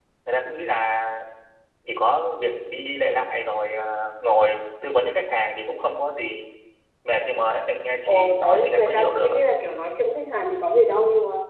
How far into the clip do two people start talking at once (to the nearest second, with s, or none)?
8 s